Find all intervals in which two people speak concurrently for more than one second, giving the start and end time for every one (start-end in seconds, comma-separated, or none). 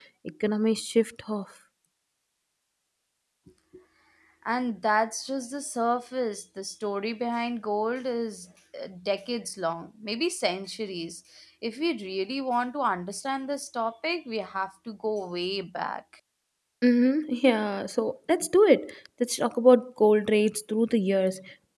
none